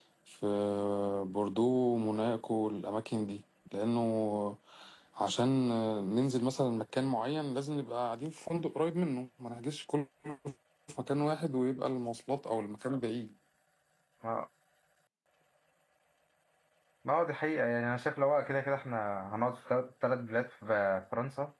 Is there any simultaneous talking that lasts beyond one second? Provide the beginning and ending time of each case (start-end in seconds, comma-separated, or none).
none